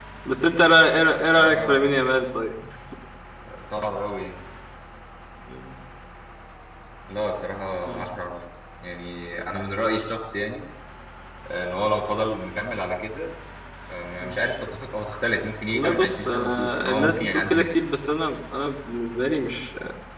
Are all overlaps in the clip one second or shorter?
No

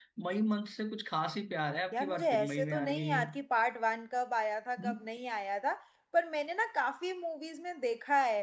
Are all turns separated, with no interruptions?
No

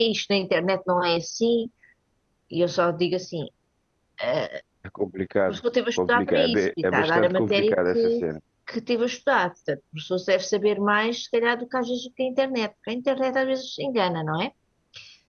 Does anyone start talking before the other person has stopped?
Yes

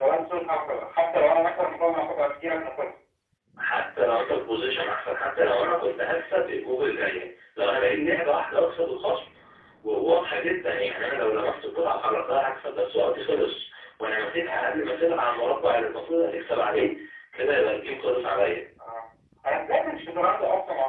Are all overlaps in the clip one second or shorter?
Yes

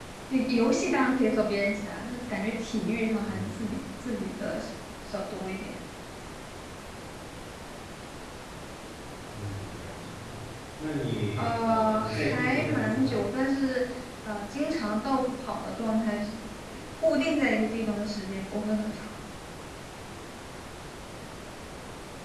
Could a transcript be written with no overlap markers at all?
No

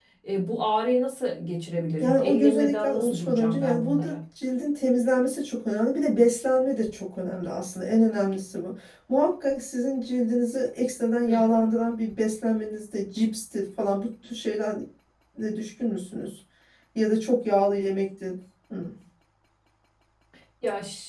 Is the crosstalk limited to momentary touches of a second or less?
No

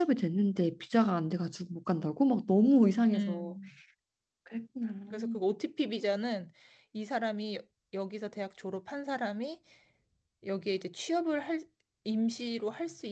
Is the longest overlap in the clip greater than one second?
No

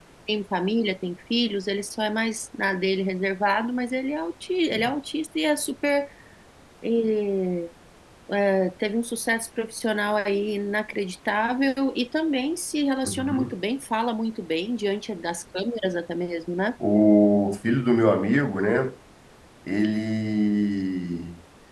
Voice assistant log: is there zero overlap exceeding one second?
Yes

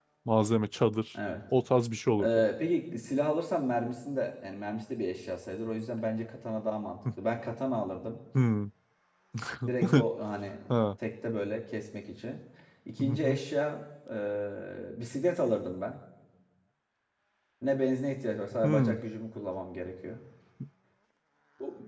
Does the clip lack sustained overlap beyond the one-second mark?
Yes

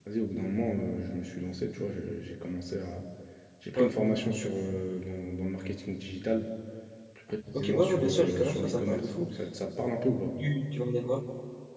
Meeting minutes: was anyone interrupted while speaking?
Yes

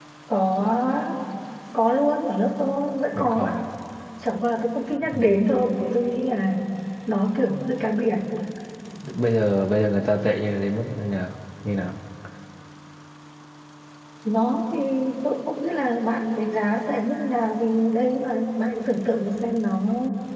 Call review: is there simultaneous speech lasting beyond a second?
No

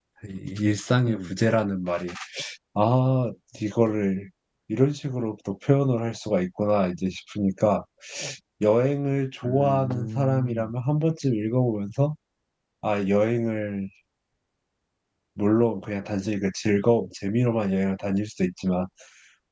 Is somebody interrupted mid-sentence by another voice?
Yes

